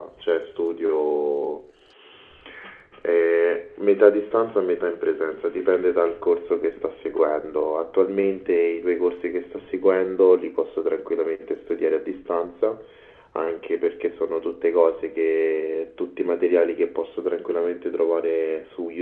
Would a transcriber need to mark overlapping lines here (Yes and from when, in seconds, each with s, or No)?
No